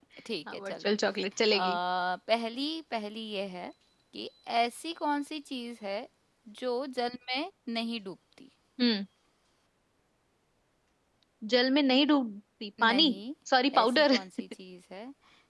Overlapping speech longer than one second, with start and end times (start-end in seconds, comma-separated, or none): none